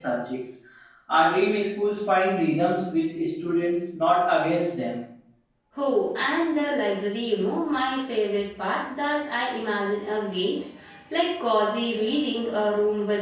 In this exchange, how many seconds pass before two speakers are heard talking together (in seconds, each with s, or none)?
none